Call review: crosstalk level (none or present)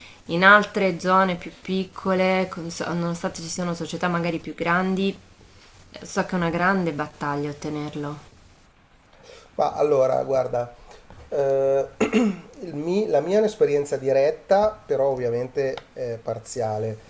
none